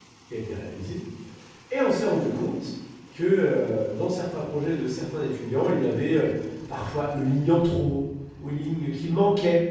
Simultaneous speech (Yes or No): No